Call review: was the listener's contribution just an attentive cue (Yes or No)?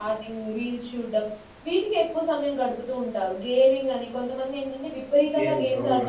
Yes